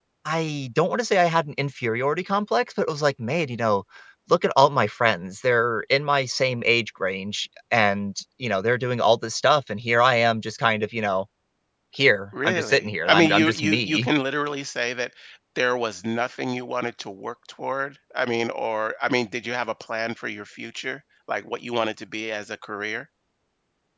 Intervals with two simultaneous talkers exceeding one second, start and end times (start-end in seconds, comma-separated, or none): 12.4-14.1